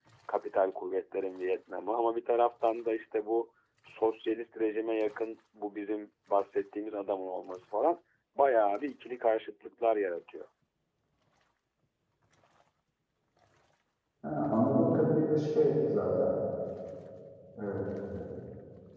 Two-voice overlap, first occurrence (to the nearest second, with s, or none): none